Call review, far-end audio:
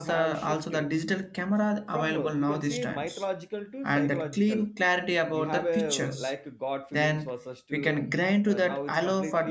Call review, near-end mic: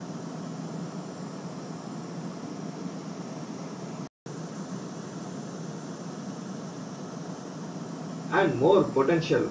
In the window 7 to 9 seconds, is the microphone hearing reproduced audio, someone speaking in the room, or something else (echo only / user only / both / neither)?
user only